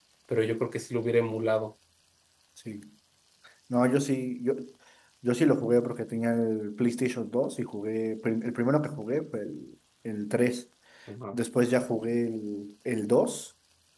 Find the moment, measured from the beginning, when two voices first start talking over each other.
none

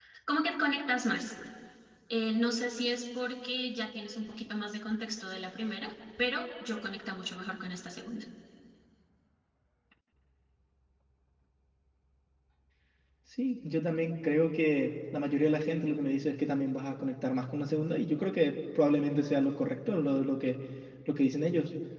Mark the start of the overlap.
none

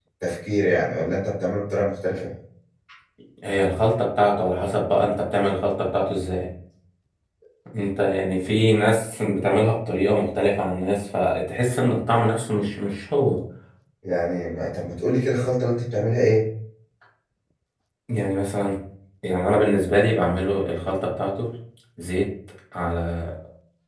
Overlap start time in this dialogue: none

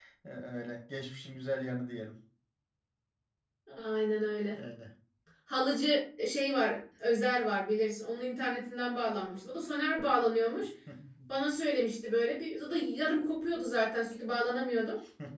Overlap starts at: none

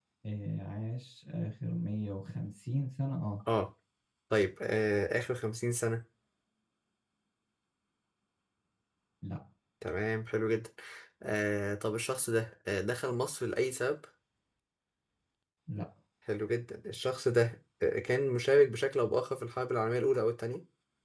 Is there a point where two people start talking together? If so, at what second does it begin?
none

